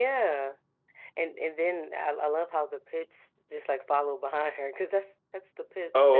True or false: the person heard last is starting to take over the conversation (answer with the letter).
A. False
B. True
B